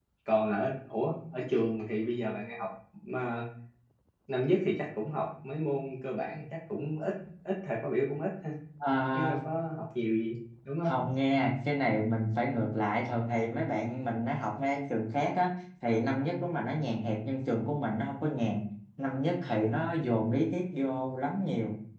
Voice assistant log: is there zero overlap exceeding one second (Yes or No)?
Yes